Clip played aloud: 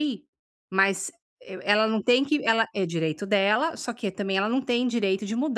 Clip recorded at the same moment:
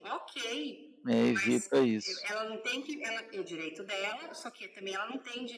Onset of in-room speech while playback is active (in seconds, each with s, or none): 1.1 s